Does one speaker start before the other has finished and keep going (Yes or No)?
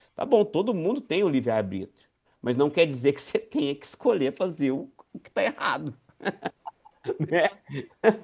No